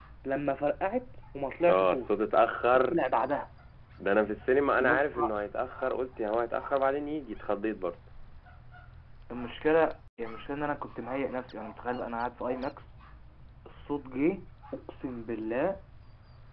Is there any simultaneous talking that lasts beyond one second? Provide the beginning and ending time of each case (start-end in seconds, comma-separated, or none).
none